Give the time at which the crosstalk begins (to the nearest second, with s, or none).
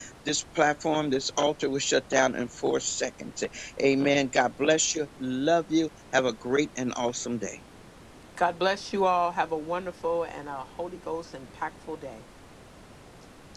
none